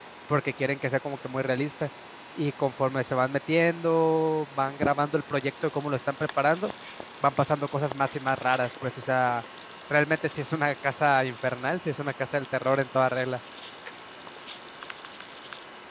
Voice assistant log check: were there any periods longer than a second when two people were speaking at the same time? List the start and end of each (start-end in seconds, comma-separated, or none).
none